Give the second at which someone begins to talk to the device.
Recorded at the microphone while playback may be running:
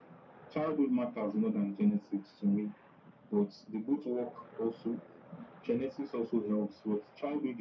none

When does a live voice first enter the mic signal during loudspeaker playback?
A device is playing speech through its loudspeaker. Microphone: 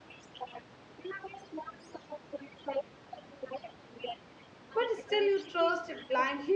4.7 s

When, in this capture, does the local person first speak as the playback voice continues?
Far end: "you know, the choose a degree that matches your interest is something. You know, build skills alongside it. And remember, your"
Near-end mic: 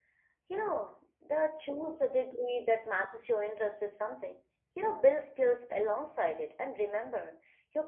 none

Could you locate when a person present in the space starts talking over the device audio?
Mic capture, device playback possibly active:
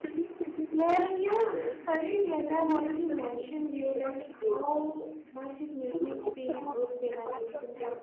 0.7 s

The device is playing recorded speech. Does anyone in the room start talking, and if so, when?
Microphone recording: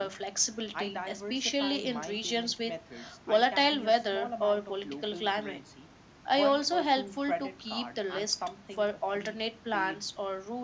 none

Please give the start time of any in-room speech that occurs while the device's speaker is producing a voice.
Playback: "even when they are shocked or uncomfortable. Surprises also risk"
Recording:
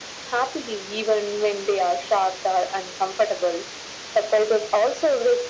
none

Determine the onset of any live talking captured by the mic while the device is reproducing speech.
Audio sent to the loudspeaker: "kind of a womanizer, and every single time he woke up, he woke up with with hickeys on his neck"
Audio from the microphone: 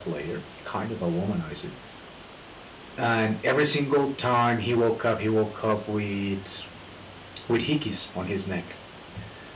none

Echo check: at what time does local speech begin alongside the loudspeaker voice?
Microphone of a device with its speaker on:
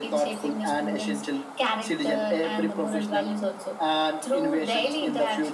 none

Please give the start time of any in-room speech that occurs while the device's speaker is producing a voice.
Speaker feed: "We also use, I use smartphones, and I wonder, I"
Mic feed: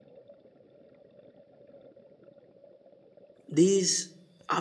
3.5 s

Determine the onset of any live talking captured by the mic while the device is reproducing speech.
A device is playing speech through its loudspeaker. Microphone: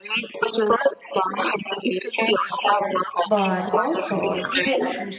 3.2 s

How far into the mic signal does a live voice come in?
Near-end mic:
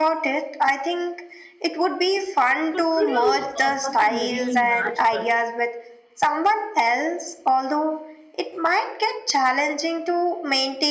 2.7 s

